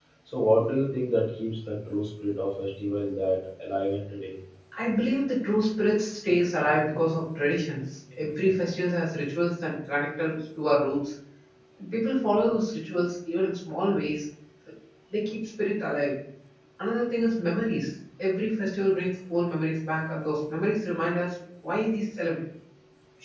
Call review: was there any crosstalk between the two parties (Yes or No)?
No